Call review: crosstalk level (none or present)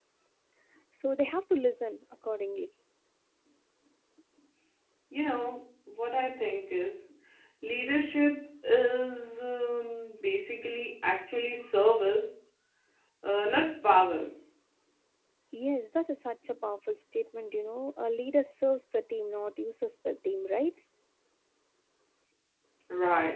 none